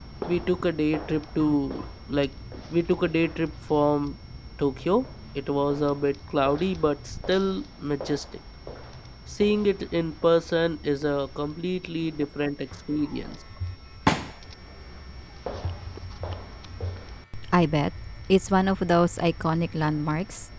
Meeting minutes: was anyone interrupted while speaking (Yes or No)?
No